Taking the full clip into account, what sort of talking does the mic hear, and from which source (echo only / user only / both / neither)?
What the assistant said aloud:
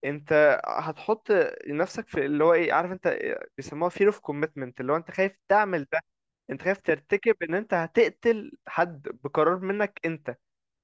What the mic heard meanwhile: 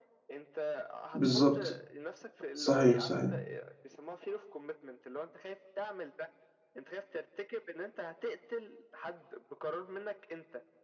both